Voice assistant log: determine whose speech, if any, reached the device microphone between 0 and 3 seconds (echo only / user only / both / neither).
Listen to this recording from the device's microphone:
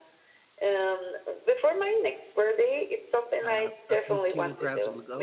echo only